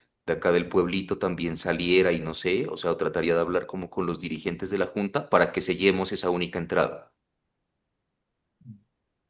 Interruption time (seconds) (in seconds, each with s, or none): none